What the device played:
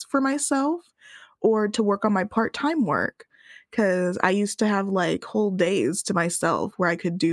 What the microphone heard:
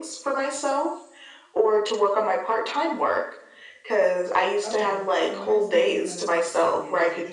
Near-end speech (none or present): present